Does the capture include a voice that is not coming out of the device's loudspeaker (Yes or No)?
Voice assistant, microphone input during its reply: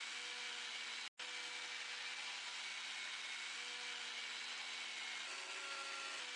No